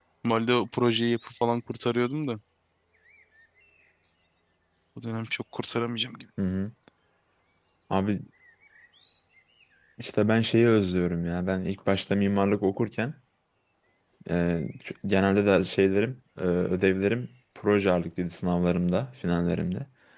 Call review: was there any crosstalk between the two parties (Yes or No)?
No